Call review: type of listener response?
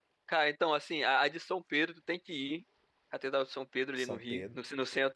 listening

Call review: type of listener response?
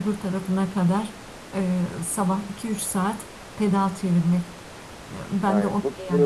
taking over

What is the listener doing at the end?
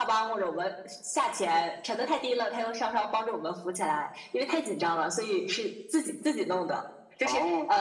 listening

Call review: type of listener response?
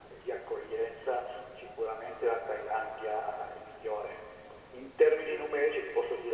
listening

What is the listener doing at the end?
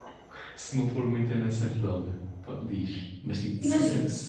listening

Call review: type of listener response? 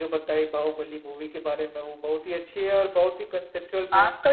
taking over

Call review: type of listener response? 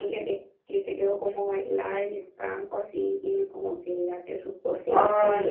taking over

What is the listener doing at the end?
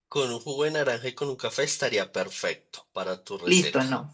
taking over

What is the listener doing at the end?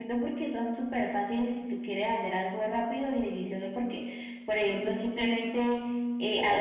listening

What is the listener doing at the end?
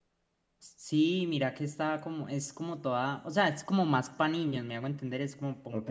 taking over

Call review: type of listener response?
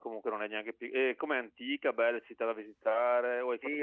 taking over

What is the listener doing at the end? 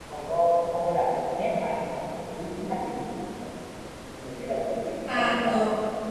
taking over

